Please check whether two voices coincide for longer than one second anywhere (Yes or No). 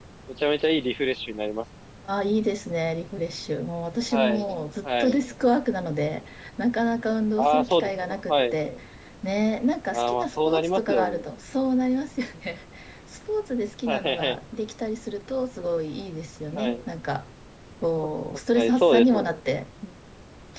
Yes